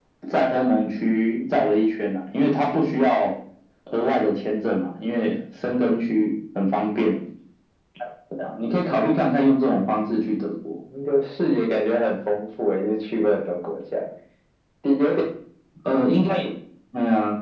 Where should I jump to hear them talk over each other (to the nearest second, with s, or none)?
none